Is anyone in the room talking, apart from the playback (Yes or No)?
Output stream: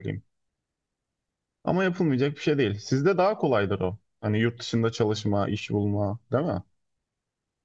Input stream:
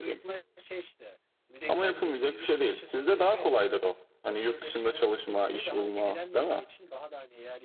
Yes